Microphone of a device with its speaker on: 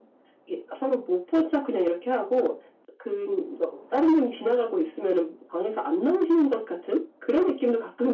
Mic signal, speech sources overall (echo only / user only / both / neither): echo only